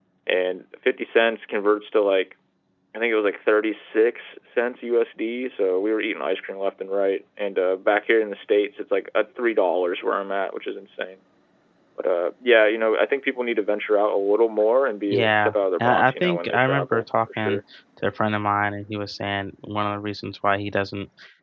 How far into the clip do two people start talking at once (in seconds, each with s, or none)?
15.1 s